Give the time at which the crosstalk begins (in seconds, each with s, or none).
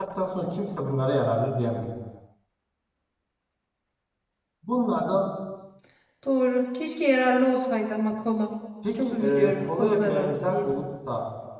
8.8 s